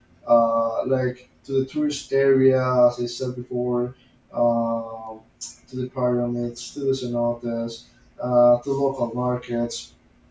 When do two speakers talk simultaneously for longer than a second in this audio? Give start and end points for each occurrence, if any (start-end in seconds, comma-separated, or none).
none